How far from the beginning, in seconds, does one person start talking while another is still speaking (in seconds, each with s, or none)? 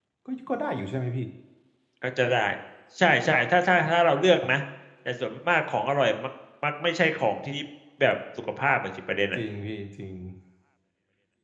none